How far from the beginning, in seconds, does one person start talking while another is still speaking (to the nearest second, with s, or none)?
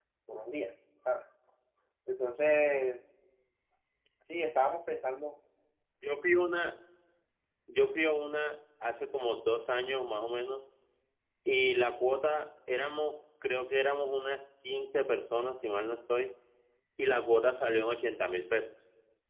none